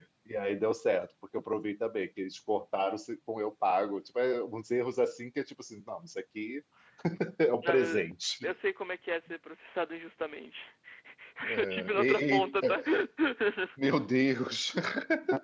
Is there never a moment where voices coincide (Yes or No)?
No